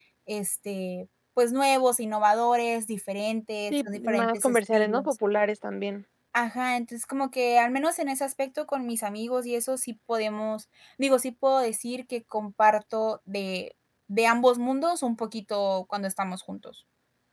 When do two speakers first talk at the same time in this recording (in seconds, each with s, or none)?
3.7 s